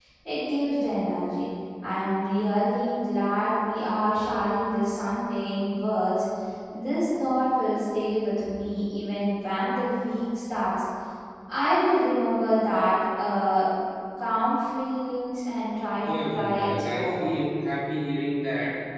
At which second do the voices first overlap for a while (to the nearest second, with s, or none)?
16 s